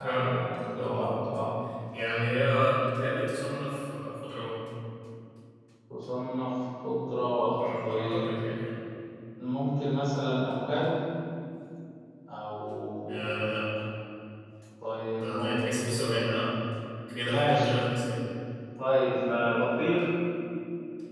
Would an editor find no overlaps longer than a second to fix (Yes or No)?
No